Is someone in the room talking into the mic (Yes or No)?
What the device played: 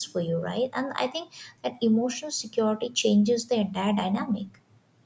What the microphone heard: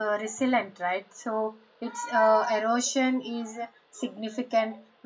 Yes